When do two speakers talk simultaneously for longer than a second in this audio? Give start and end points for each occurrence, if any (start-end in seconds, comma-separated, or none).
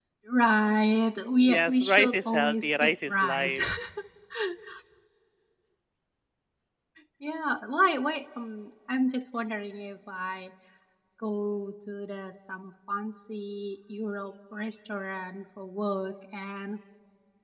1.5-3.6